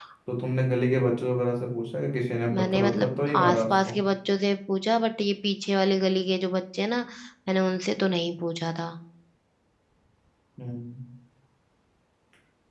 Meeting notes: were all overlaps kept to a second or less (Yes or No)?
No